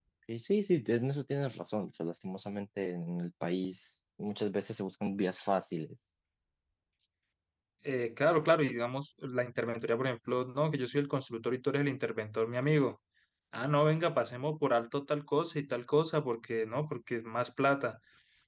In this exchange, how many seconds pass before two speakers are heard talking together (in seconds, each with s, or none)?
none